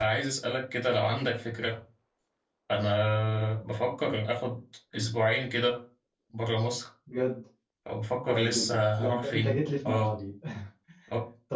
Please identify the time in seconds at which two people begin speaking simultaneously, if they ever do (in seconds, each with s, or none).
8.3 s